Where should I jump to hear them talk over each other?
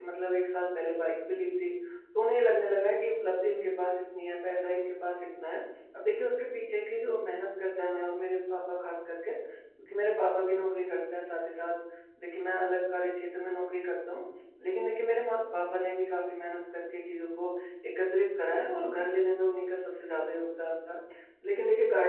none

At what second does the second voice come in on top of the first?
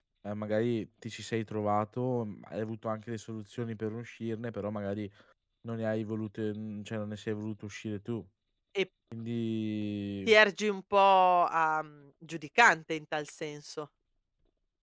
none

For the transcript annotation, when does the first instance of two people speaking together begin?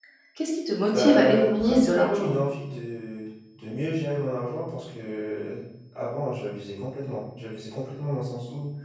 0.9 s

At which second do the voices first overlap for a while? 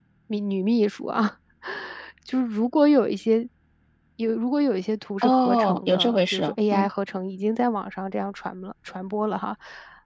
5.2 s

